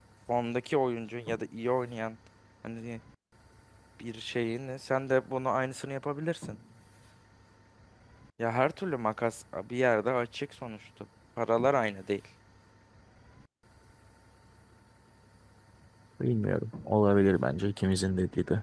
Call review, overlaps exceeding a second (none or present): none